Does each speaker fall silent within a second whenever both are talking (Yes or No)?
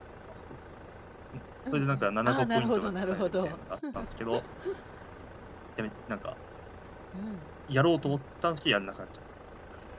No